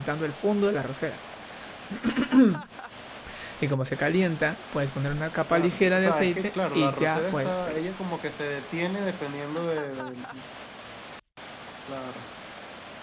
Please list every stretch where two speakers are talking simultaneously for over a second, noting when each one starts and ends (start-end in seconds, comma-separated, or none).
5.5-7.9